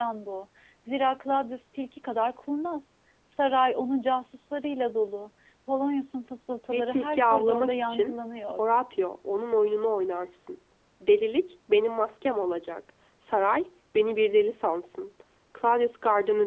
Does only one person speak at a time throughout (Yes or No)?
No